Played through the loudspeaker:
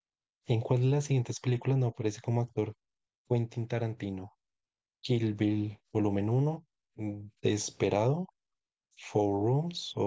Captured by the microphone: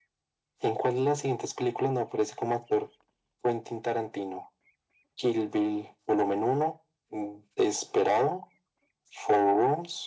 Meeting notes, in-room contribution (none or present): none